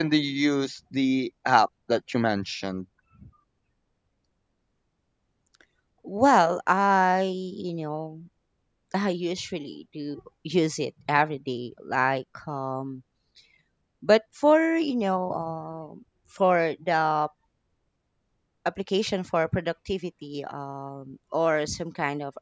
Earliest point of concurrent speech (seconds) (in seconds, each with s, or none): none